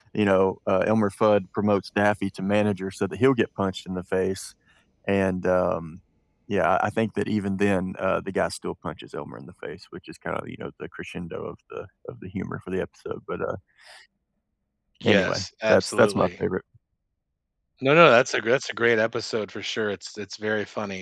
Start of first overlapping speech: 15.0 s

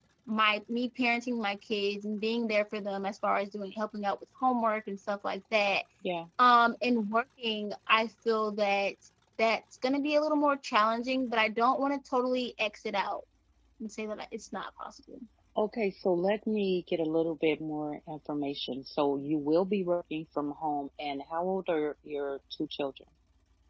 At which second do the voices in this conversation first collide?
none

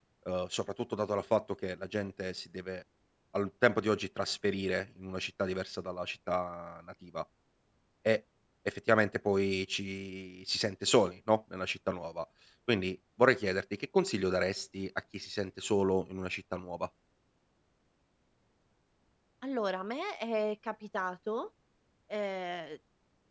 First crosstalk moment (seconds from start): none

